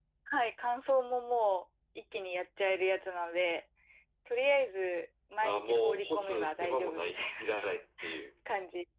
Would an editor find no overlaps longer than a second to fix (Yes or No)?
No